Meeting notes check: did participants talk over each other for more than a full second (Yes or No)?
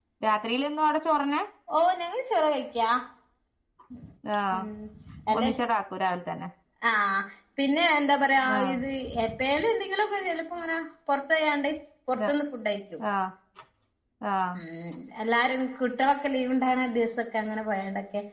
No